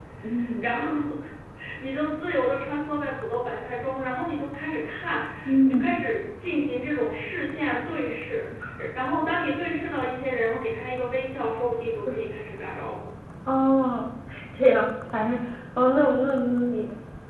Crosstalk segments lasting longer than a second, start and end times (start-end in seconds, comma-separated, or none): none